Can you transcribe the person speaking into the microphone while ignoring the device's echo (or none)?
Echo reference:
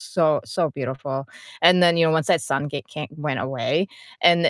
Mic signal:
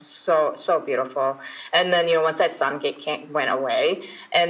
none